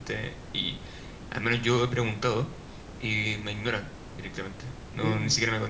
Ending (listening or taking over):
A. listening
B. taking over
A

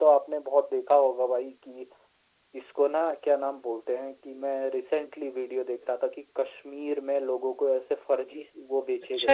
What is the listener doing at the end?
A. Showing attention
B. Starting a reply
B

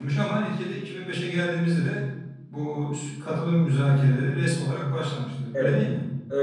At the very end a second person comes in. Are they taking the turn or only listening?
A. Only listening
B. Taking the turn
B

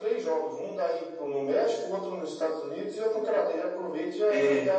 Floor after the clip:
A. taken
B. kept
A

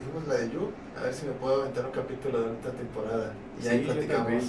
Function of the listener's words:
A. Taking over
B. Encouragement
A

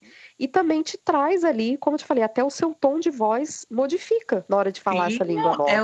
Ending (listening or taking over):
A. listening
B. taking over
B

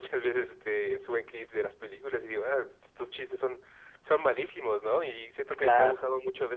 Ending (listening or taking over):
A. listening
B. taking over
A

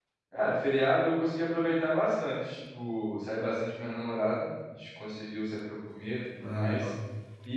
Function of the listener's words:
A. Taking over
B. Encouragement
B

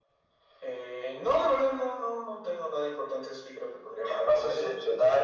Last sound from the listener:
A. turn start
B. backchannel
A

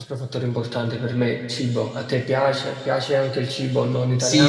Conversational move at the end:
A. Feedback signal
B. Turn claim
B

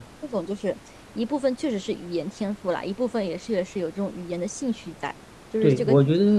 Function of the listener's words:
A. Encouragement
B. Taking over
B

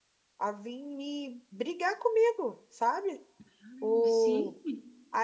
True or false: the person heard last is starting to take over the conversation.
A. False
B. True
A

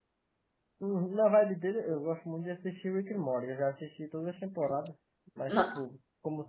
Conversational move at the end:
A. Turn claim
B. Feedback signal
B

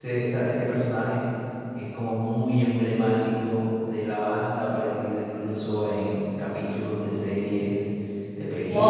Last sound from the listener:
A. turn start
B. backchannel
A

